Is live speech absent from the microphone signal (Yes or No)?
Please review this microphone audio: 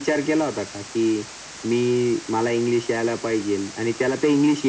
Yes